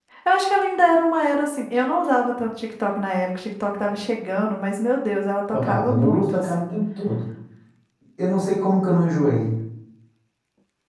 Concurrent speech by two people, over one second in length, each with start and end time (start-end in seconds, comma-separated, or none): 5.5-6.7